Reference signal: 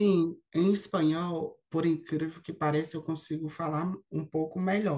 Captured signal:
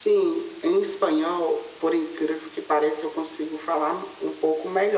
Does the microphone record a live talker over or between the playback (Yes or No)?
No